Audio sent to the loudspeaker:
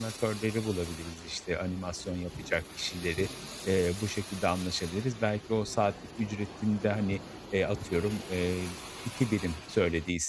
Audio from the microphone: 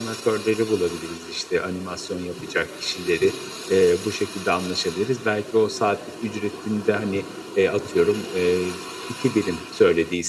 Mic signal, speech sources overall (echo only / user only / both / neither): echo only